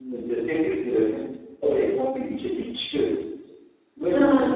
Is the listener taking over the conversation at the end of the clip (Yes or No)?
Yes